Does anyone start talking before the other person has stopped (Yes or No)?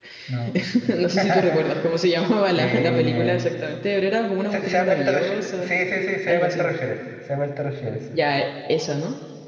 Yes